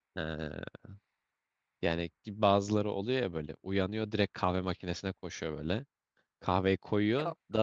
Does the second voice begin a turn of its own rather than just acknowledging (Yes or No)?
No